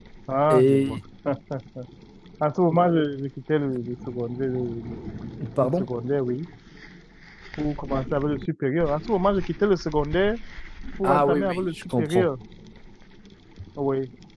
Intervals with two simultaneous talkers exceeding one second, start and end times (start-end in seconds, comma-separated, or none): 11.0-12.3